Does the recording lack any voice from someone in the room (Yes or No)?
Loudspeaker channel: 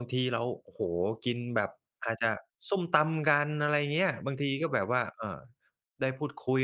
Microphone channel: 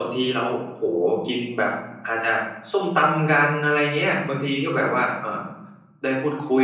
Yes